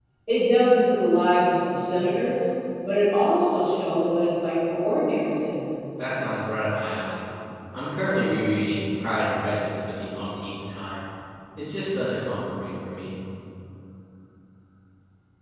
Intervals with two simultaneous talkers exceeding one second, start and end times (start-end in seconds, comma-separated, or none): none